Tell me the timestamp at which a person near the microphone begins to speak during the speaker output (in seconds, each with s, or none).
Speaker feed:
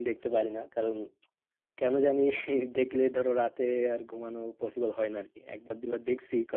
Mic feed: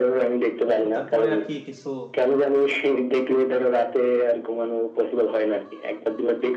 0.8 s